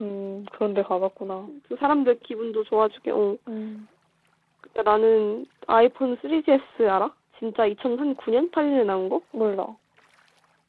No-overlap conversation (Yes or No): Yes